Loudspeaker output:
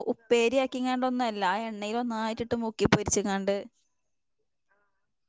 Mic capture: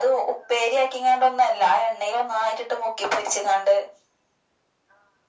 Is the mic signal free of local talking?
Yes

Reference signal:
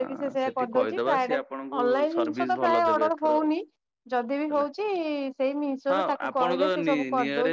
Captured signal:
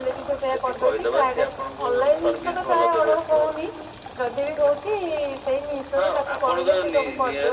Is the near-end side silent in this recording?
Yes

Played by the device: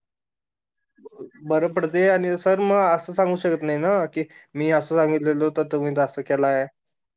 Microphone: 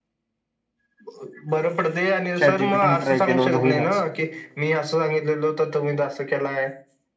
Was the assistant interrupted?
Yes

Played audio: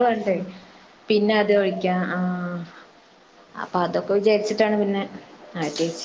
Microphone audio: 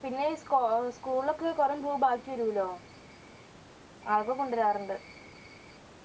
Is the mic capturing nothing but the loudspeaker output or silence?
No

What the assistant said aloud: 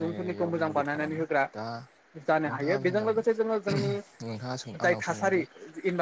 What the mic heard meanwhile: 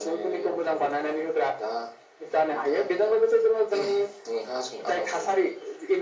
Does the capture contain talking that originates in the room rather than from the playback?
No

